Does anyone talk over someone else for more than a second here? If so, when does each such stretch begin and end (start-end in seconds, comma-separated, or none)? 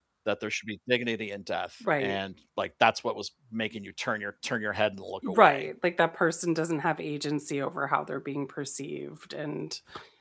none